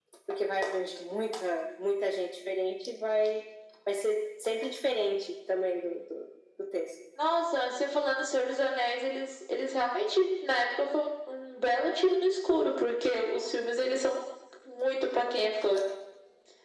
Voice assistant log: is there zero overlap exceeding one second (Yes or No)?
Yes